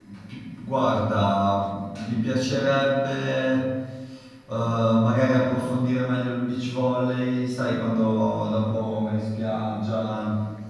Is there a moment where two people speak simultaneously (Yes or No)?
No